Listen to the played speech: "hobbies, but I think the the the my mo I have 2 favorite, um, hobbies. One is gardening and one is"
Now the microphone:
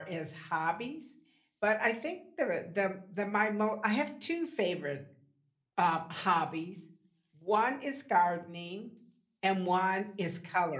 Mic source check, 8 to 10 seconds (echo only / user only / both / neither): echo only